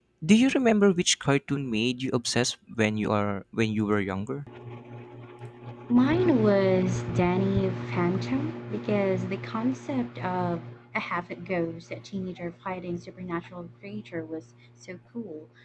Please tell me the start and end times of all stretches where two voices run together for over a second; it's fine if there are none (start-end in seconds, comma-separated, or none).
none